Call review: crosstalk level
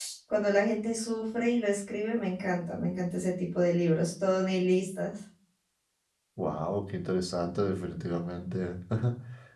none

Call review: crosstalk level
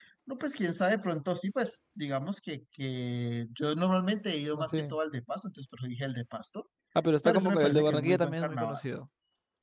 present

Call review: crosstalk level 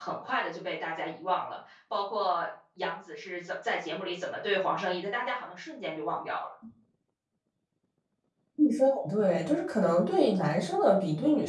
none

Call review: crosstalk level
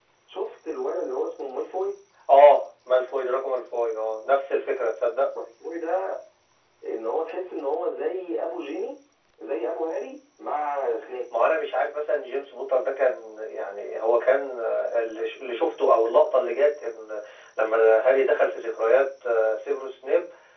none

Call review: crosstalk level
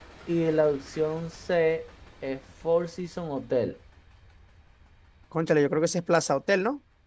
none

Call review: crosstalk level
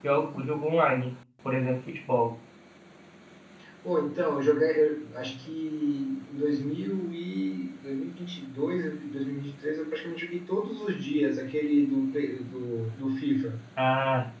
none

